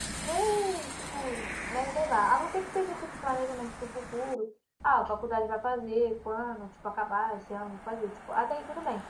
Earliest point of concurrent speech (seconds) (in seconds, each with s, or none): none